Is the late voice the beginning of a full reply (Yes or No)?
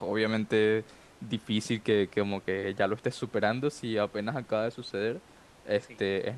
No